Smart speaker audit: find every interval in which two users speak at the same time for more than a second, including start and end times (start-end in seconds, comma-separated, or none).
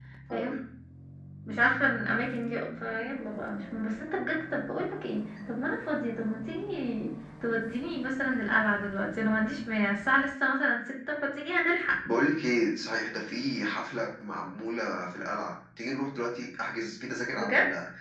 none